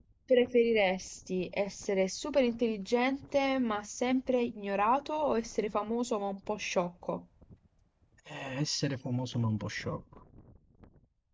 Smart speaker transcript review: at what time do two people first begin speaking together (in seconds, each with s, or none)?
none